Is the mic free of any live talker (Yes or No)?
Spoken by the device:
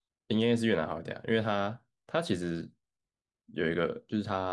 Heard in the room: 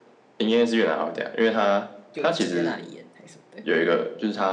No